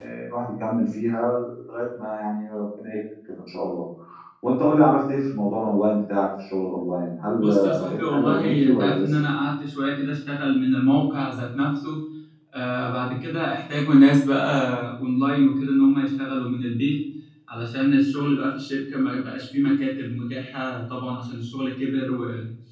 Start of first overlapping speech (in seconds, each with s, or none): 7.4 s